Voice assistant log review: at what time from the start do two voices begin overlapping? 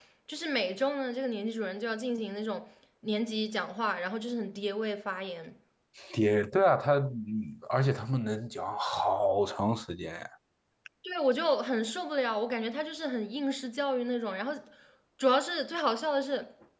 none

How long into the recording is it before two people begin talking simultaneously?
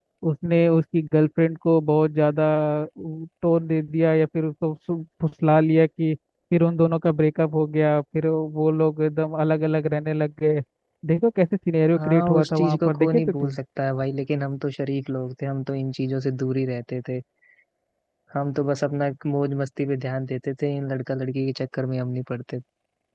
11.9 s

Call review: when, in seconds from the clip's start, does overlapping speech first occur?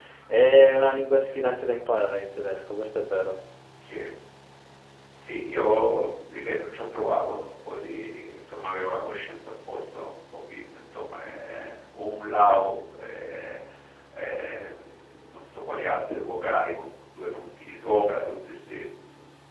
none

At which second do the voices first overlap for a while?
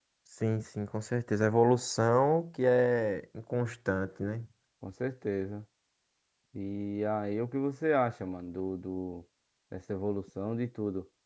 none

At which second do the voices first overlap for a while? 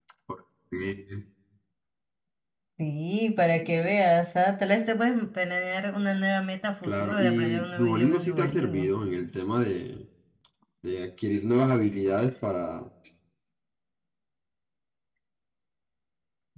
6.8 s

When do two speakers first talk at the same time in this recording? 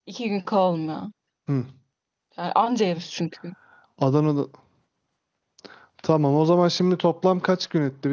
none

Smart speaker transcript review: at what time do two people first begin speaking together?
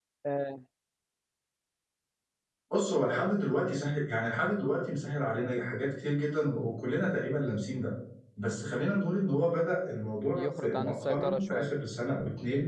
10.3 s

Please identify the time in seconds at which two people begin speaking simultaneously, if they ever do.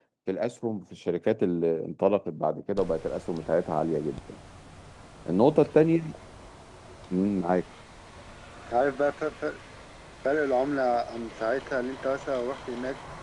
none

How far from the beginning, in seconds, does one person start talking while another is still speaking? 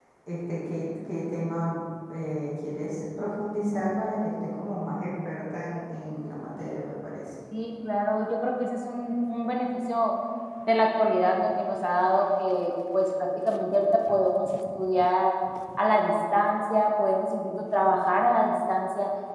none

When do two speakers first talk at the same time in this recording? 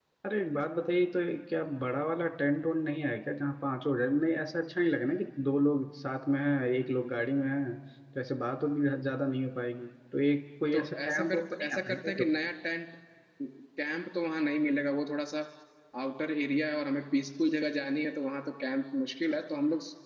10.7 s

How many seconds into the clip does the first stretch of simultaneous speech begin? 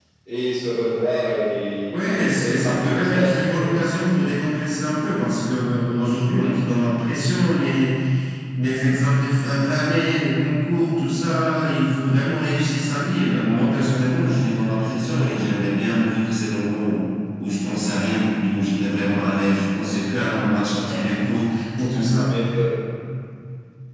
1.9 s

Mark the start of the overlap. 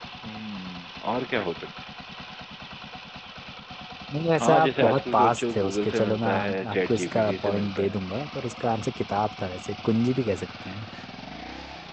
4.4 s

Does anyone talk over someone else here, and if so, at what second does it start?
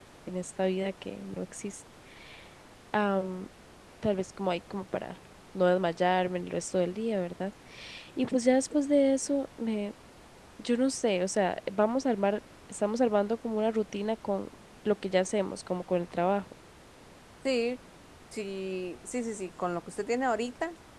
none

